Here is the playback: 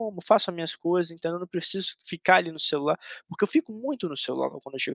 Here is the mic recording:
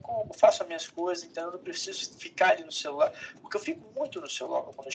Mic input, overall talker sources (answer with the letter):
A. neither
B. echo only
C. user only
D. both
B